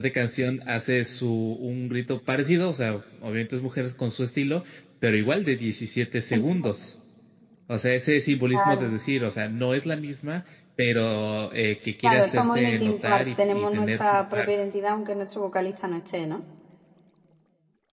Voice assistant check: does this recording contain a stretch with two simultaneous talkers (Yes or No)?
Yes